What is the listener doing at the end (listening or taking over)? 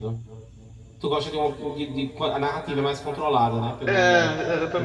taking over